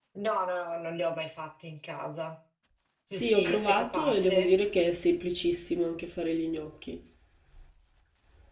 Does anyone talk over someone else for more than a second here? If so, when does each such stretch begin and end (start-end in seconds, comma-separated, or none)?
3.1-4.5